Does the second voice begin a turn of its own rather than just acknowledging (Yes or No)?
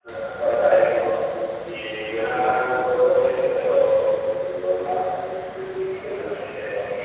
Yes